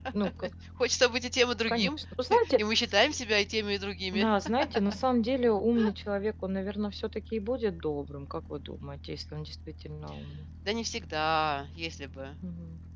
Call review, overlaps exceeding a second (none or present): none